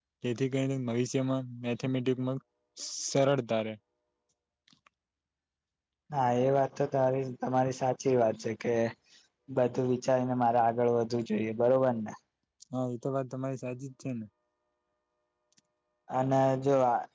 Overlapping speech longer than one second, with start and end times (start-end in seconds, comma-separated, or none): none